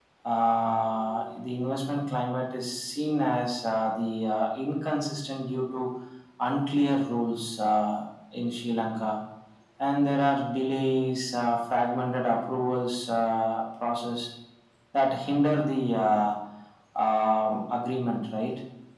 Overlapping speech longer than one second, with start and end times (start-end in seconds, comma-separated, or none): none